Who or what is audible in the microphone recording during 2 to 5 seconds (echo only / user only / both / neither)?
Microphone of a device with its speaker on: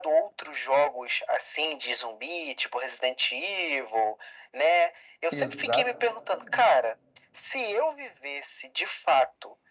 echo only